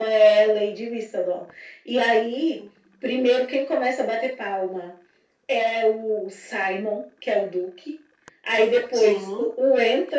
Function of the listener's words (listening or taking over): listening